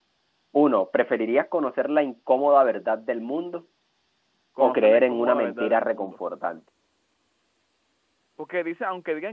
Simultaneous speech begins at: 4.6 s

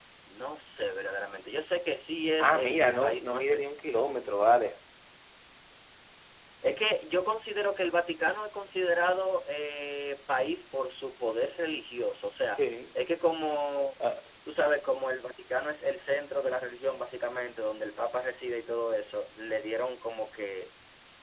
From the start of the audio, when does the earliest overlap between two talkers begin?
2.4 s

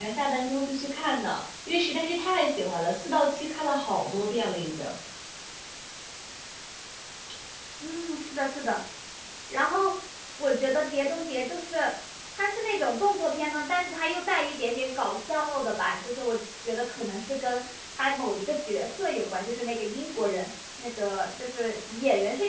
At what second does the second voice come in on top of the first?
none

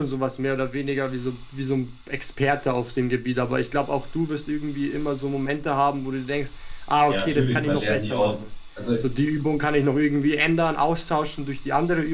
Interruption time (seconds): 7.1 s

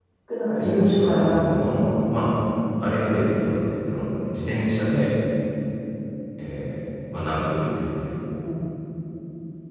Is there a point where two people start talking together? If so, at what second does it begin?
0.6 s

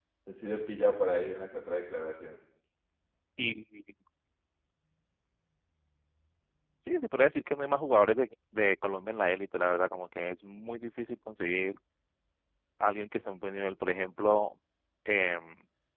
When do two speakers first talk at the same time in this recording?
none

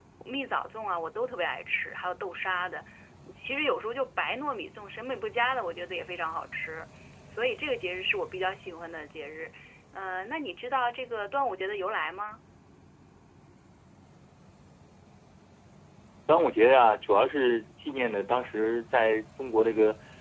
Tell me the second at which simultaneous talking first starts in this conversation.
none

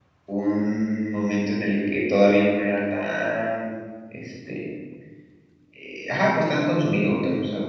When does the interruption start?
none

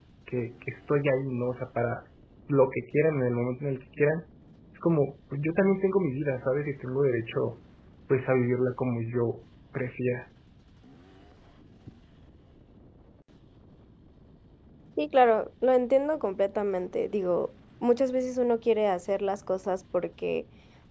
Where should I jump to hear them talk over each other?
none

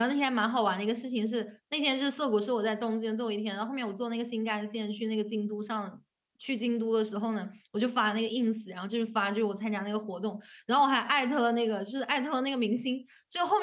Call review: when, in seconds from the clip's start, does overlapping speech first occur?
none

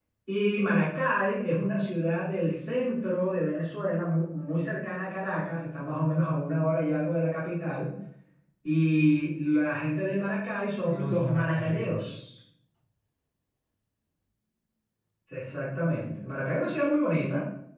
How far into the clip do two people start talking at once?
10.9 s

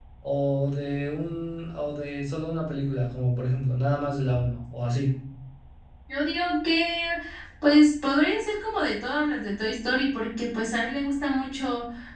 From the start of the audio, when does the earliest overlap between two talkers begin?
none

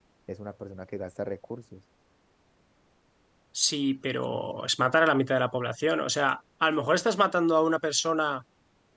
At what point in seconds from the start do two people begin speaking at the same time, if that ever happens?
none

